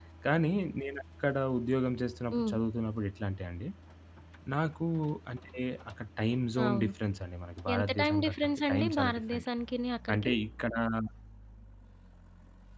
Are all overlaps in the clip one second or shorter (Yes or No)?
No